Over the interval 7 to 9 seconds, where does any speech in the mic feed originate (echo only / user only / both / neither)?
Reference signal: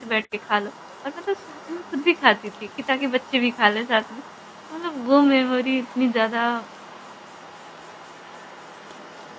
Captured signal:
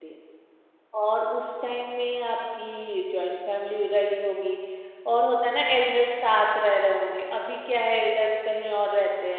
user only